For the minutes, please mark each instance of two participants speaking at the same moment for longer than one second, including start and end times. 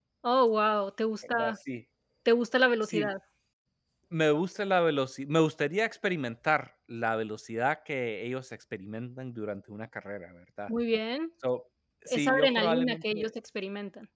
12.1-13.3

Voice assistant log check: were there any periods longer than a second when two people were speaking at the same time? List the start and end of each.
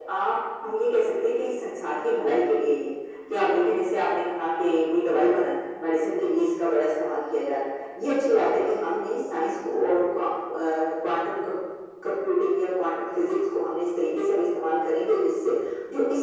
none

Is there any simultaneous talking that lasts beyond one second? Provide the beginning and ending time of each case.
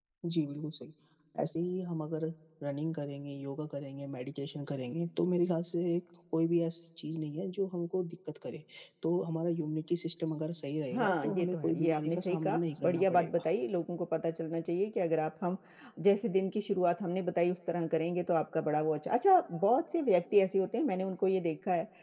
10.9-13.5

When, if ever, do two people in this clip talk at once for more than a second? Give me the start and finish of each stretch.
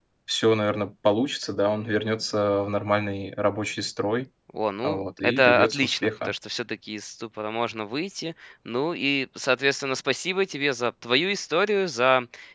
4.8-6.3

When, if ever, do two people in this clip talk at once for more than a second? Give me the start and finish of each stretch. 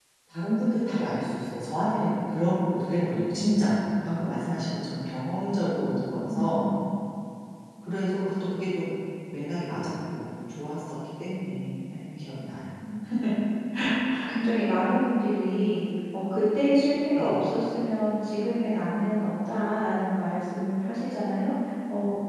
none

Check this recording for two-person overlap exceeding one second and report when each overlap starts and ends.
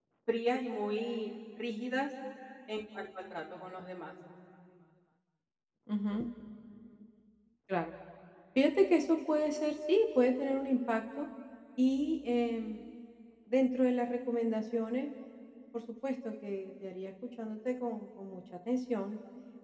none

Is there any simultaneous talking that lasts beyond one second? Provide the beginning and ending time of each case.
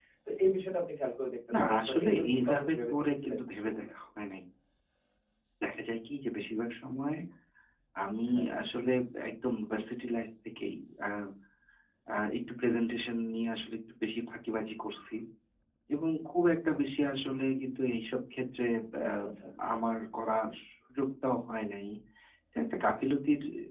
1.5-3.9

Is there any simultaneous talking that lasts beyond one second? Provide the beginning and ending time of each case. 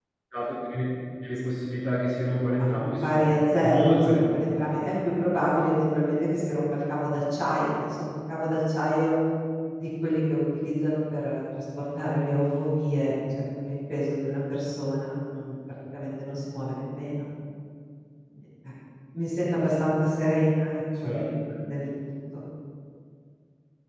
2.7-4.6

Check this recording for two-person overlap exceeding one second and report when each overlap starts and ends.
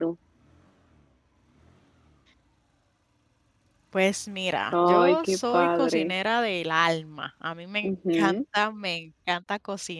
4.7-6.1

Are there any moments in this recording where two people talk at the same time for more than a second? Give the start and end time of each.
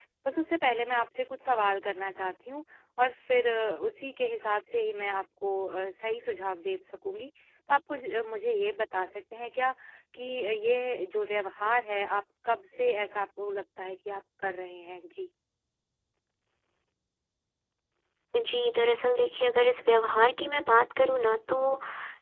none

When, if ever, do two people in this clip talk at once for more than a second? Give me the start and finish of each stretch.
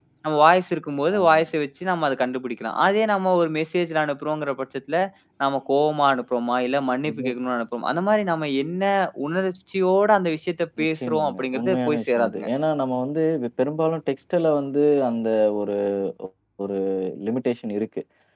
10.8-12.5

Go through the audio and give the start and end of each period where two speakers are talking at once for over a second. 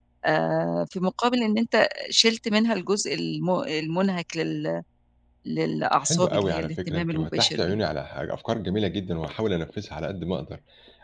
6.0-7.8

